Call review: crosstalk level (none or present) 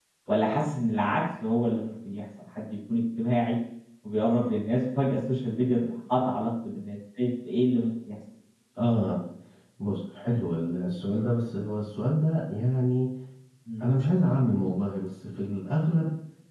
none